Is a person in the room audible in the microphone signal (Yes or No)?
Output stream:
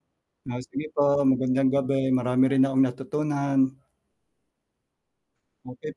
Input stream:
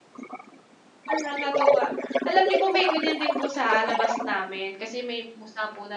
Yes